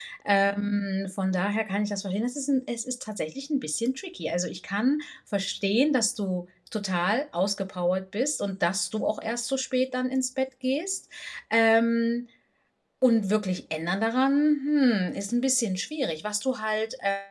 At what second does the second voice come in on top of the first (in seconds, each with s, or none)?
none